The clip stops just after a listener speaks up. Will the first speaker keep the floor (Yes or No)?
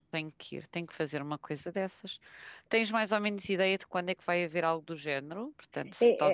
No